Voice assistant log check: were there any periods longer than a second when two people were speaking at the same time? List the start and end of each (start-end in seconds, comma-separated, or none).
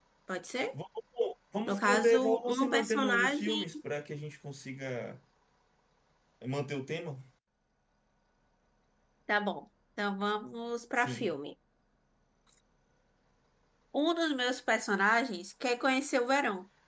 1.7-3.6